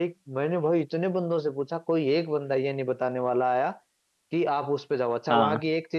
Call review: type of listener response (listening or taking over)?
listening